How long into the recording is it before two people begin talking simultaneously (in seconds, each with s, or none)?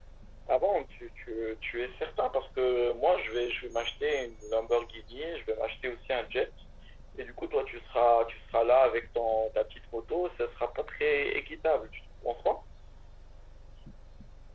none